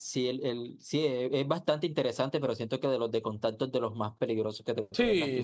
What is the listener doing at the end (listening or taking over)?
taking over